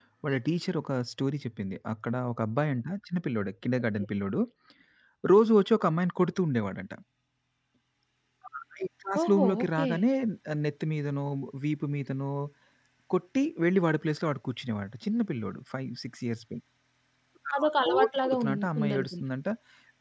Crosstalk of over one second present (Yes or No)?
Yes